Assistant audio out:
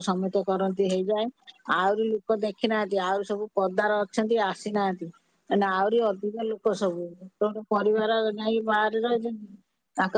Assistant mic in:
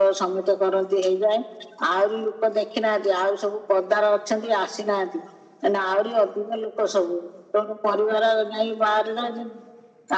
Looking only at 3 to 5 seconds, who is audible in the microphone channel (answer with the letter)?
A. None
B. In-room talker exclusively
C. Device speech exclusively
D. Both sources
C